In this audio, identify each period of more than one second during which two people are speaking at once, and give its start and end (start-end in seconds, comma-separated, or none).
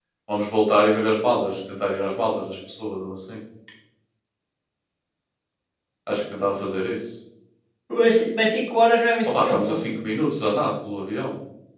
none